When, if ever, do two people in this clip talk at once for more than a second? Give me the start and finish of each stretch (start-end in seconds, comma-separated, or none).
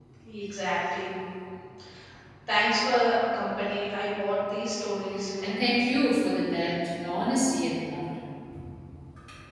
none